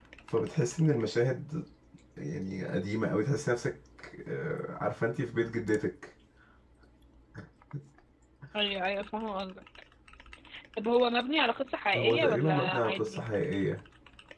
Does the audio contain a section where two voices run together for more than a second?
Yes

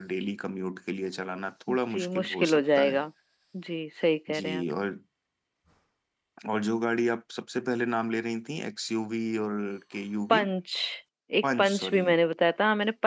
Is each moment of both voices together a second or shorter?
No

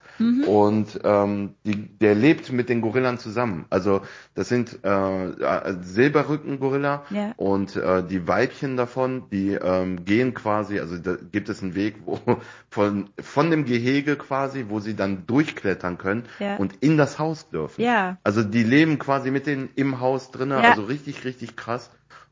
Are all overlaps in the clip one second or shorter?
Yes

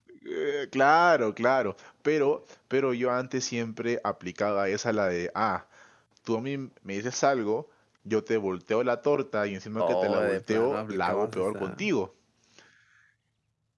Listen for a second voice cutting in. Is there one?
Yes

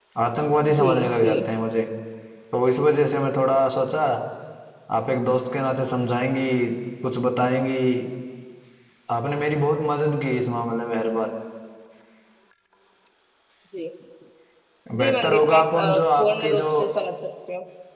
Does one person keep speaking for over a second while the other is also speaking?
Yes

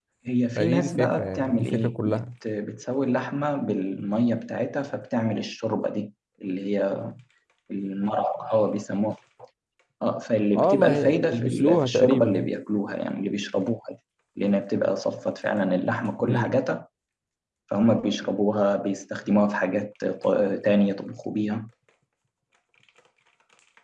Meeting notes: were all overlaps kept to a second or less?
No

